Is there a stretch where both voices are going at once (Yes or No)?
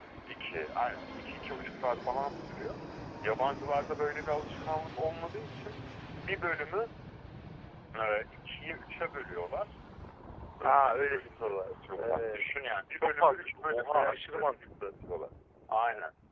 Yes